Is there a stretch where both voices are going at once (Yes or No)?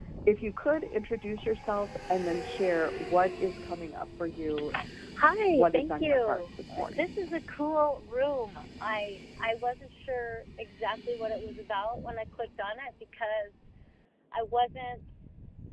Yes